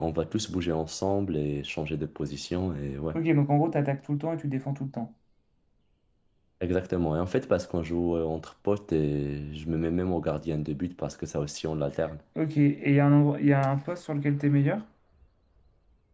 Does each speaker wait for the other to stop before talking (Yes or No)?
Yes